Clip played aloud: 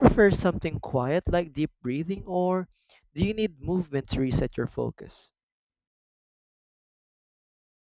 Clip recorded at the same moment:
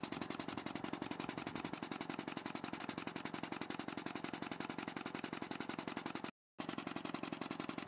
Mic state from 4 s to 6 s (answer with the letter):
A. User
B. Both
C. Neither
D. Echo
C